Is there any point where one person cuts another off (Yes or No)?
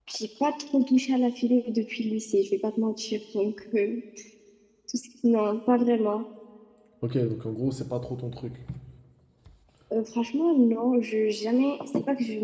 No